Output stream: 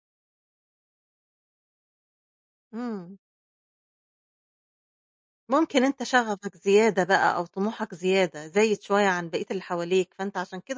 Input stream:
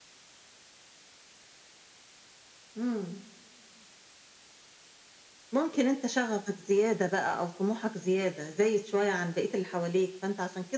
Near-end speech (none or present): none